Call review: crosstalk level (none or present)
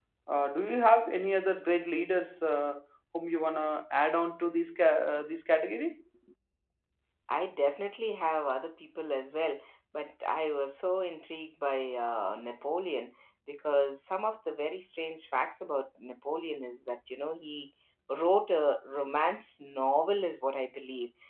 none